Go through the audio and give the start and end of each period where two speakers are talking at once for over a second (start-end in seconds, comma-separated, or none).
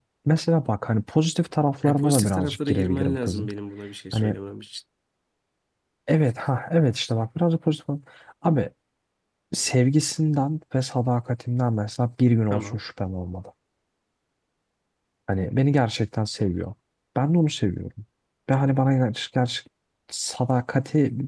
1.8-3.5